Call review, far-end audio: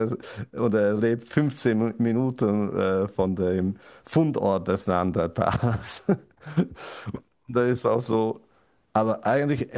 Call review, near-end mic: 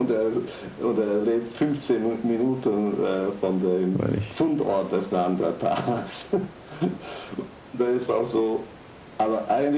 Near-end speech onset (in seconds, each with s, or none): 3.9 s